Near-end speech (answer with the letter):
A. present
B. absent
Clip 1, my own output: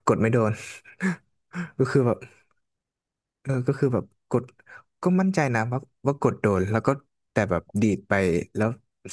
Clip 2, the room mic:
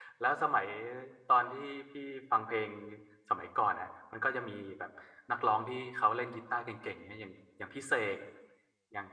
A